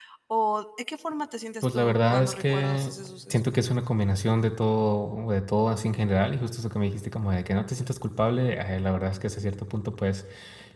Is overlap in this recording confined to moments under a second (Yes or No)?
No